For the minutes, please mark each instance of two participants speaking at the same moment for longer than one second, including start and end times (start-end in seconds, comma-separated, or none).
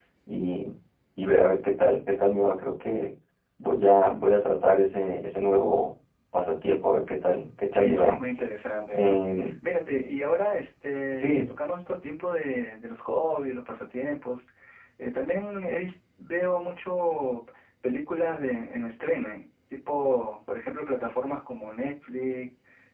none